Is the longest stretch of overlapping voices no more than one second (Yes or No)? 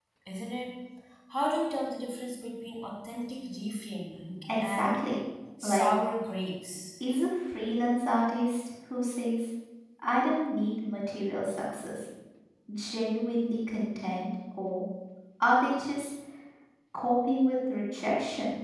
Yes